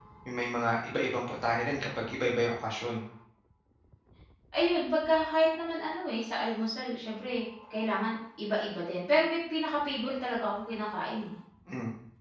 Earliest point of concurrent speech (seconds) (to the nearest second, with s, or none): none